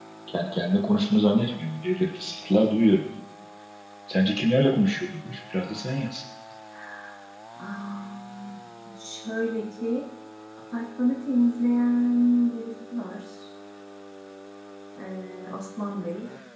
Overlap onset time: none

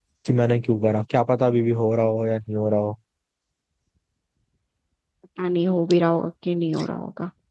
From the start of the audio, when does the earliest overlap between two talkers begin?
none

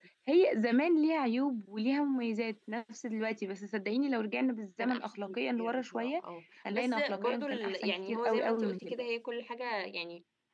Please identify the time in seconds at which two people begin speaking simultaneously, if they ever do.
5 s

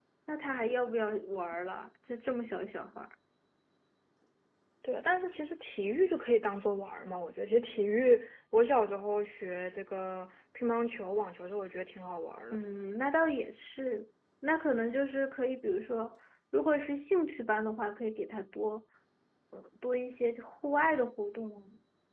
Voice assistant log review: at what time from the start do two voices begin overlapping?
none

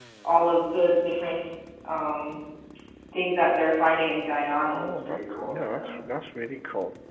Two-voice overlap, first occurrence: 5 s

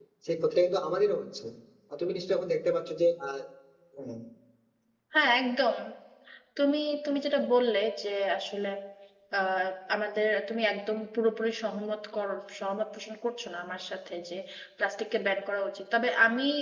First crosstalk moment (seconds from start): none

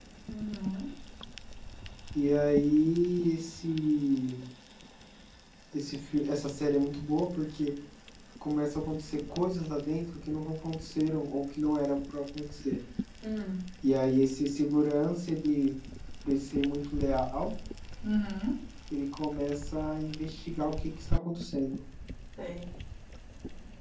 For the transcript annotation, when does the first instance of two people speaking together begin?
none

